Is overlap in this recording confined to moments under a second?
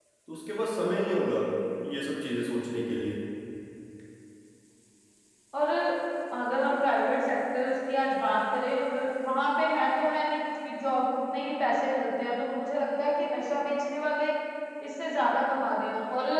Yes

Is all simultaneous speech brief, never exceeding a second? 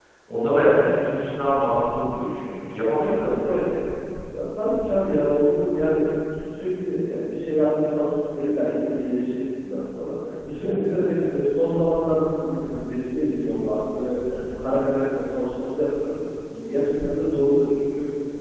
Yes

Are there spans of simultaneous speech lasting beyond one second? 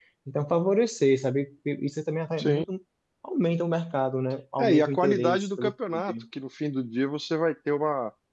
Yes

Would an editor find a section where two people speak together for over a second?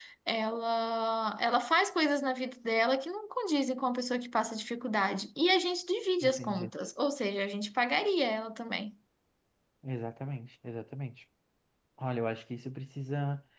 No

